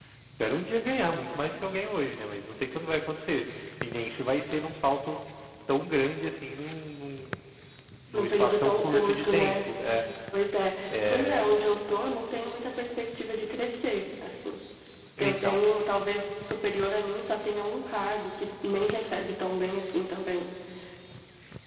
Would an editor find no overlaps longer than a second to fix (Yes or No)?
No